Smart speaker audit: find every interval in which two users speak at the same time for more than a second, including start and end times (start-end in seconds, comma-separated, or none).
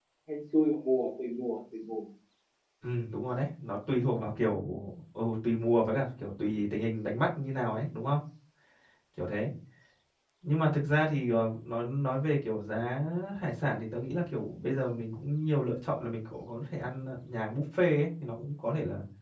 none